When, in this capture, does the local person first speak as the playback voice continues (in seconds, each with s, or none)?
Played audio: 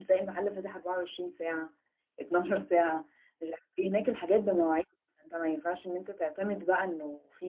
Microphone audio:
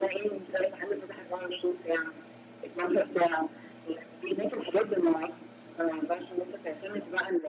none